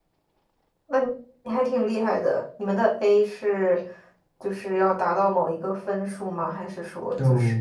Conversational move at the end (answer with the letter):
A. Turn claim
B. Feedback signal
A